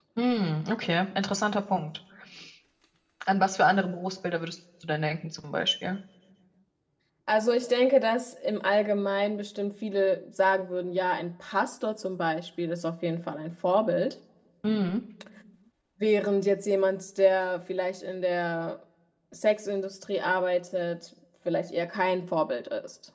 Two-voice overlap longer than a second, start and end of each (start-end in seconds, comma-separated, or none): none